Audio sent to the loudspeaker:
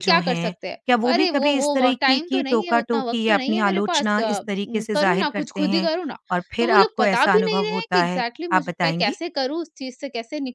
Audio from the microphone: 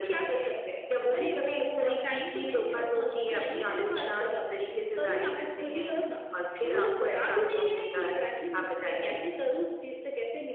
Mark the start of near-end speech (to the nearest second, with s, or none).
none